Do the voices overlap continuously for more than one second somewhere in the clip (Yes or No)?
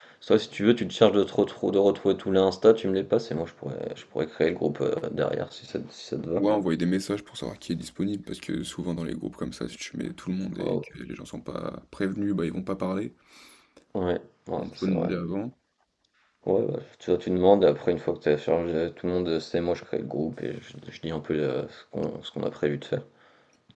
No